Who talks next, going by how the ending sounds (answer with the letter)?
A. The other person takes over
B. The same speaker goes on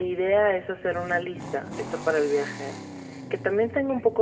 B